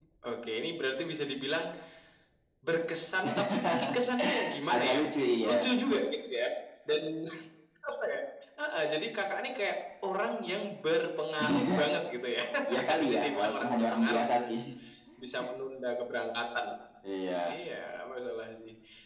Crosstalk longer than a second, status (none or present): present